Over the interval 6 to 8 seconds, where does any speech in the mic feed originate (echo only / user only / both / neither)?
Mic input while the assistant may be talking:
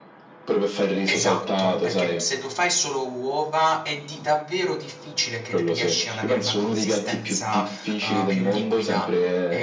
both